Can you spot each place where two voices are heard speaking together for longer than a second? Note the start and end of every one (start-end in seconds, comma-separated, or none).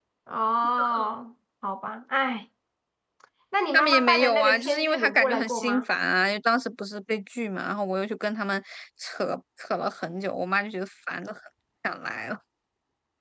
3.7-5.8